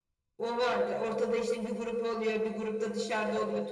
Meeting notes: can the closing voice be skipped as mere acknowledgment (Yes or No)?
Yes